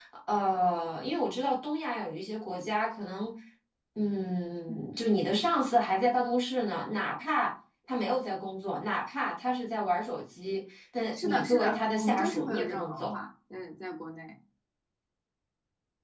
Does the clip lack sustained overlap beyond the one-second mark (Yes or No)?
No